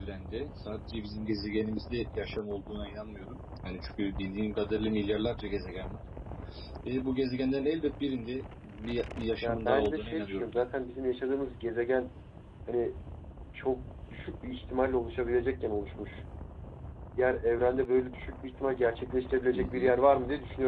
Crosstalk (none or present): present